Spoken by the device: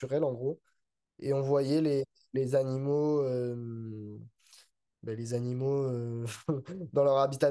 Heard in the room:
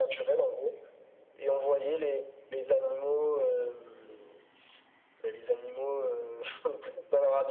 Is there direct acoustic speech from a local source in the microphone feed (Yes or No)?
No